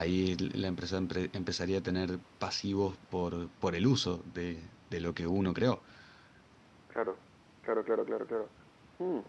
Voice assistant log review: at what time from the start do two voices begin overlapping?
none

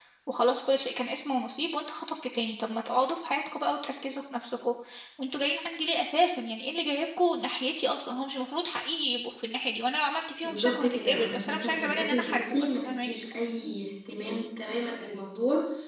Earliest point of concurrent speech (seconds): 10 s

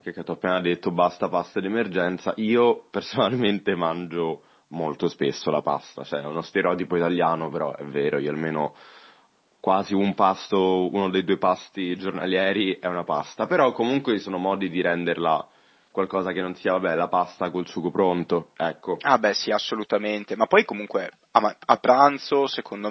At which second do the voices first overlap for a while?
none

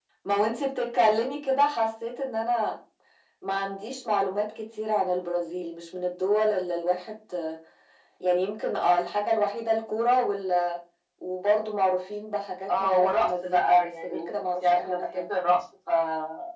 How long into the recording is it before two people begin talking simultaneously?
13 s

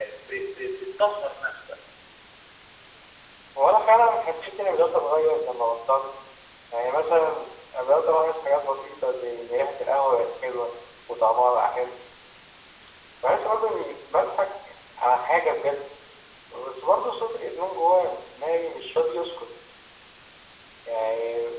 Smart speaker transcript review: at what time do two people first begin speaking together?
none

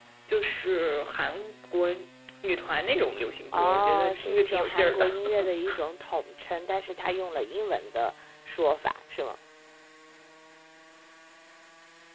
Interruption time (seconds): 4 s

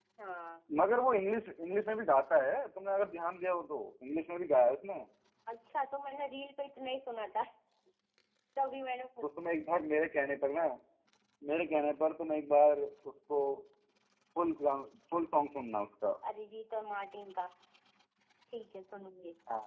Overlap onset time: none

